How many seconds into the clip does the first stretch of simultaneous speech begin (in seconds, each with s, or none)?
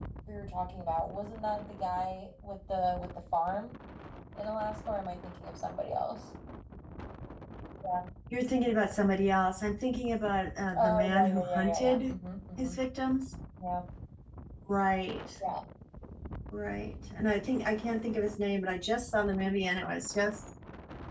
10.7 s